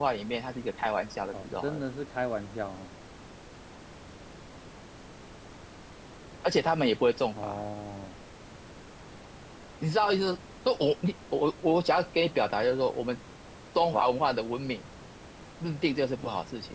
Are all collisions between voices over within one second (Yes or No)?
Yes